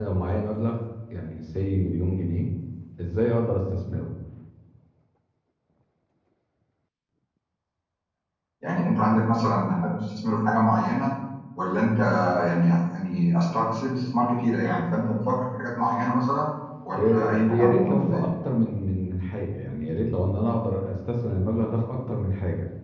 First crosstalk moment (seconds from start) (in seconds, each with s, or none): 17.0 s